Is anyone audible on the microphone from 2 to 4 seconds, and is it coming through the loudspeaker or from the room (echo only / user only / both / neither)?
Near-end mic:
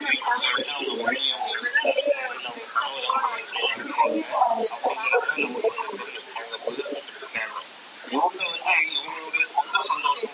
echo only